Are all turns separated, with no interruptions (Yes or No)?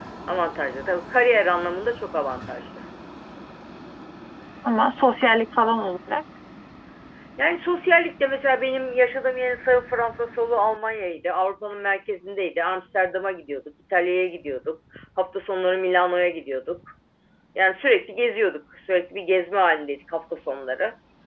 Yes